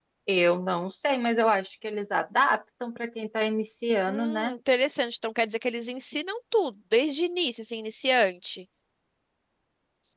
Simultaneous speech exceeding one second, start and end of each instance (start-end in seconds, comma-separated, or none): none